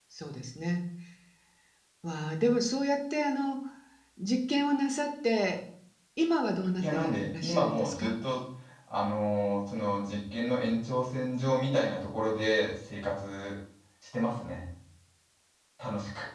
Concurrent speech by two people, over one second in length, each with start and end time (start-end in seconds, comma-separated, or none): 6.8-8.1